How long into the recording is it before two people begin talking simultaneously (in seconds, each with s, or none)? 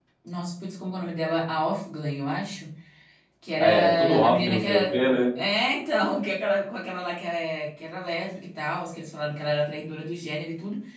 3.6 s